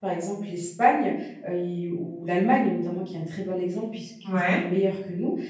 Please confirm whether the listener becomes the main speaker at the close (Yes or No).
No